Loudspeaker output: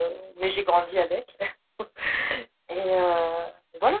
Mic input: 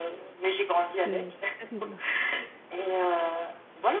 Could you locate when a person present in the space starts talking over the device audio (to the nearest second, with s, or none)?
1 s